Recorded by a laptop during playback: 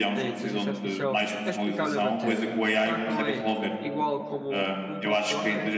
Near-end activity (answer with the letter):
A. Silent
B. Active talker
B